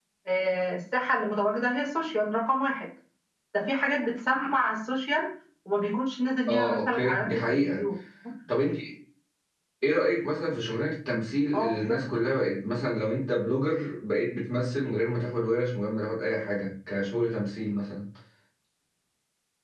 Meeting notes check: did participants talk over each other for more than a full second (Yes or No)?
Yes